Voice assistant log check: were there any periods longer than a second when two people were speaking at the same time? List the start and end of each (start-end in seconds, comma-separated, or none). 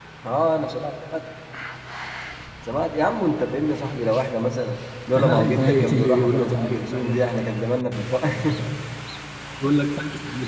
5.2-7.4